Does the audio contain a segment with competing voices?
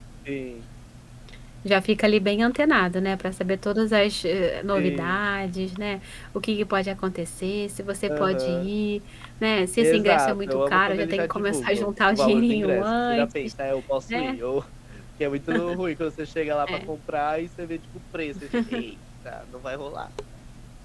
Yes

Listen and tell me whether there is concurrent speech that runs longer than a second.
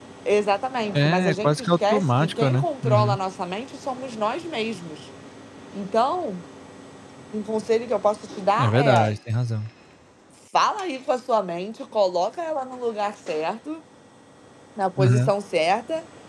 Yes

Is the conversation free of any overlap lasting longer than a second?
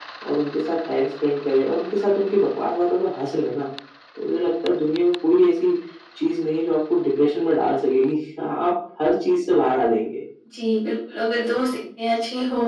Yes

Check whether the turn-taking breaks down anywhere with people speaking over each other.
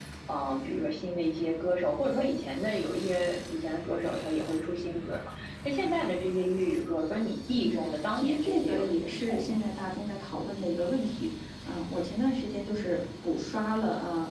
Yes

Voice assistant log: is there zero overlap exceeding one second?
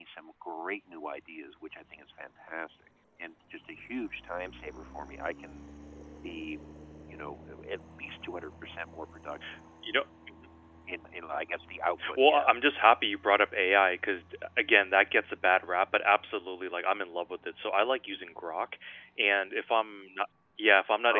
Yes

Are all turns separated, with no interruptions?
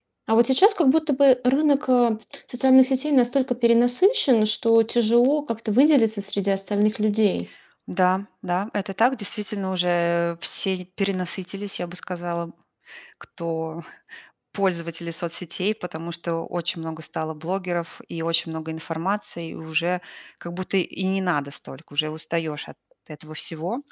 Yes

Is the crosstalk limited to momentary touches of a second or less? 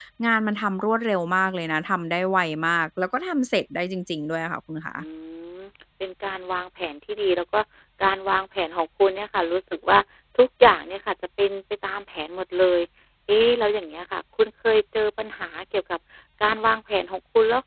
Yes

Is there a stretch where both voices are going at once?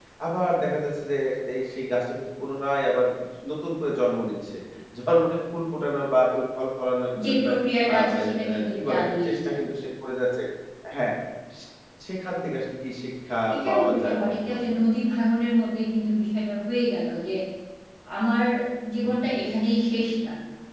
Yes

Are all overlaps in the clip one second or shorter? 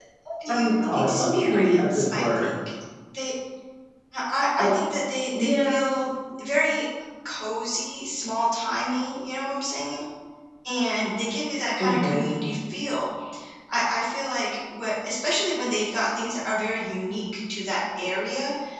No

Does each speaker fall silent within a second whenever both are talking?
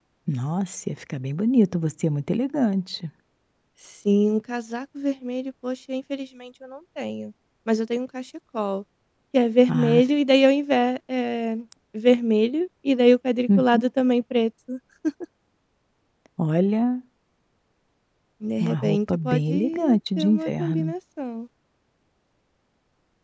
No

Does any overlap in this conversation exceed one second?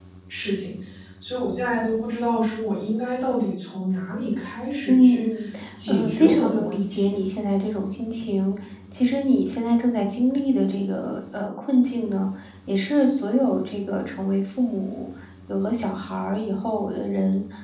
Yes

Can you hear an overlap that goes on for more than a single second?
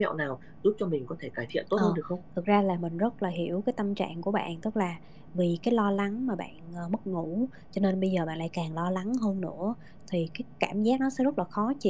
No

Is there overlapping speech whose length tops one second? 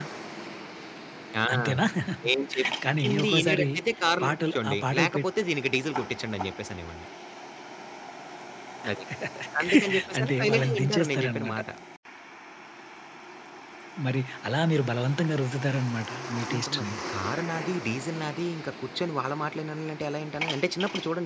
Yes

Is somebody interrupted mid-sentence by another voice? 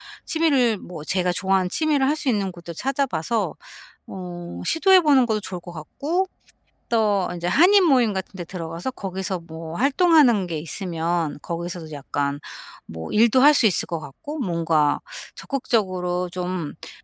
No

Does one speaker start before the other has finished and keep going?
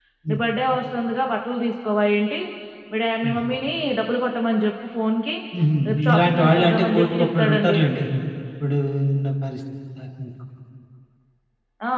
Yes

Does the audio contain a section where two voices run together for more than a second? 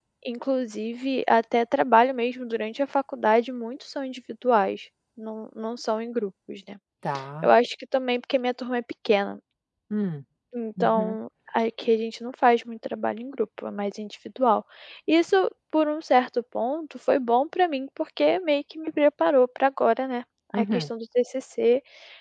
No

